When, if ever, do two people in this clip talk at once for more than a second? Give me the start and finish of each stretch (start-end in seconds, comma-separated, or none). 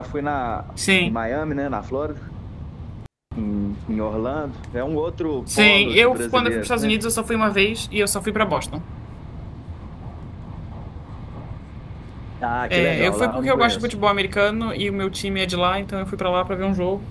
5.6-7.0, 12.7-13.9